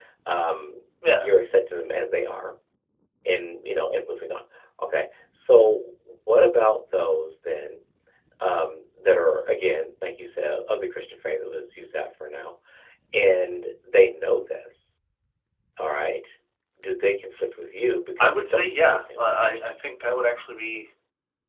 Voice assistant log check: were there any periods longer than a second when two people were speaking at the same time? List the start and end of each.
18.2-19.4

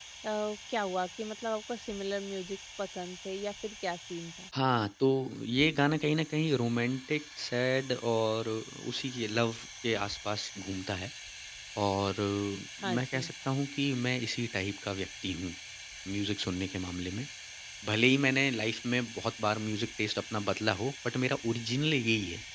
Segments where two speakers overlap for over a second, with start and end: none

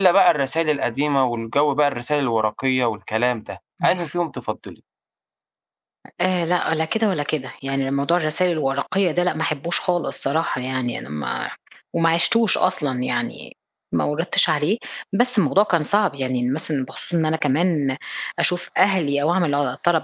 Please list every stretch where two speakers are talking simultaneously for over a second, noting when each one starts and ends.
none

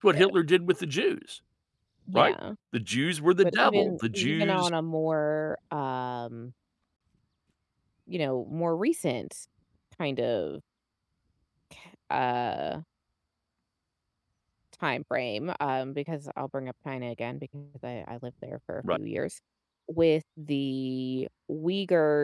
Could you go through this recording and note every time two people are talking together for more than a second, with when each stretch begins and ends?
3.4-4.7

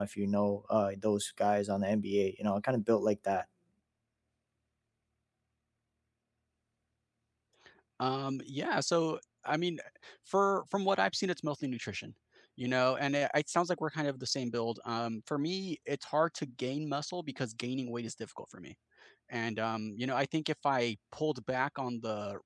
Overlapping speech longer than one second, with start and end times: none

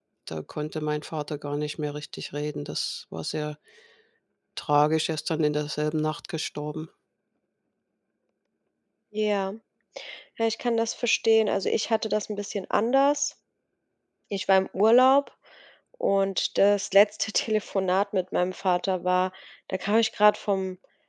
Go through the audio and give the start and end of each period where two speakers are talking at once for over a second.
none

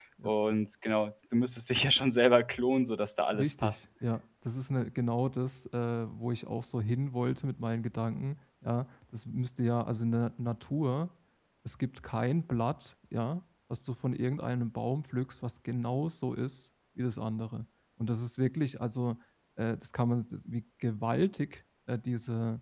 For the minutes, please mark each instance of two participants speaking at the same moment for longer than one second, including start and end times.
none

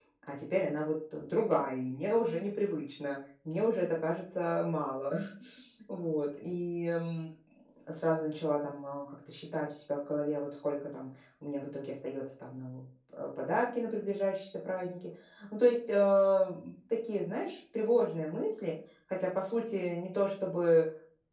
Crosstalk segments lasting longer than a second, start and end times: none

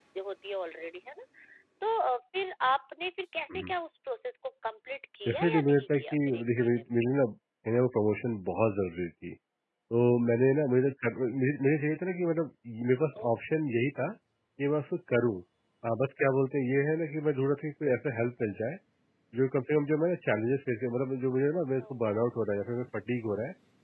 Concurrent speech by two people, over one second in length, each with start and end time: 5.3-6.8

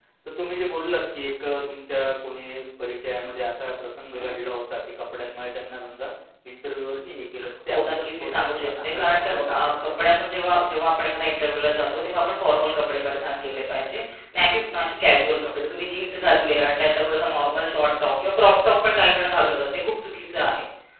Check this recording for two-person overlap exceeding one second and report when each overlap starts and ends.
7.7-9.3

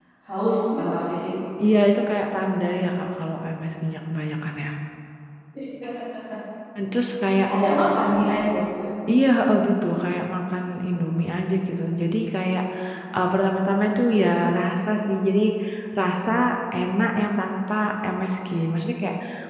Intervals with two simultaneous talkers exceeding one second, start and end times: none

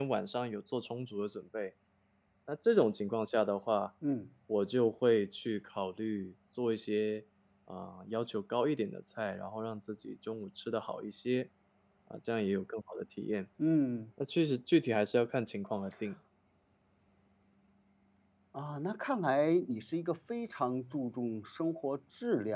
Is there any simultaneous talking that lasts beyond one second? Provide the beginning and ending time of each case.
none

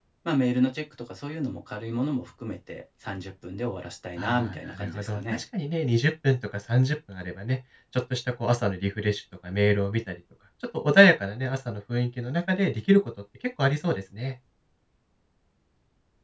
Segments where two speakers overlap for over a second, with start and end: 4.2-5.4

